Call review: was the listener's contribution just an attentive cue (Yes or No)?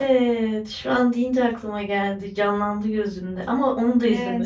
No